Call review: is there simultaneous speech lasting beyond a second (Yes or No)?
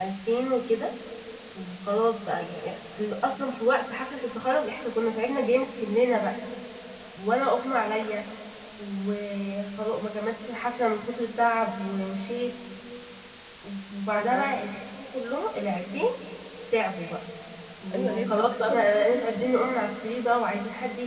Yes